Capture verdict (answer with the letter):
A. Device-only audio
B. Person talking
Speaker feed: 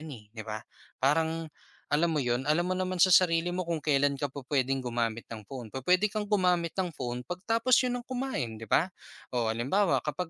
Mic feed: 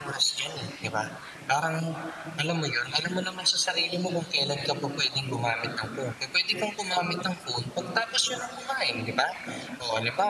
A